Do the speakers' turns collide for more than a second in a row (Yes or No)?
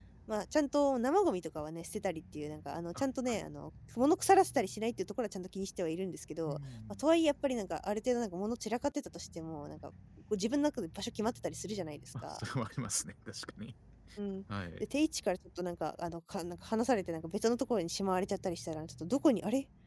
No